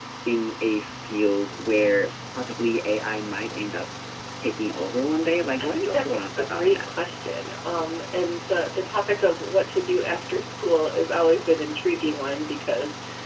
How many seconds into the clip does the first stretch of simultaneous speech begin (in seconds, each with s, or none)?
5.6 s